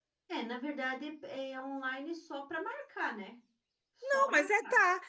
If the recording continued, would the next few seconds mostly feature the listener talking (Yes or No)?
Yes